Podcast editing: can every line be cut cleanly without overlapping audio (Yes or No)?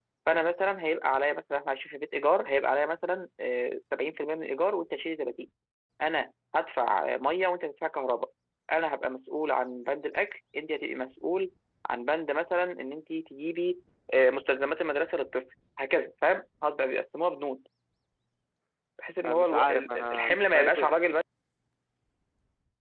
No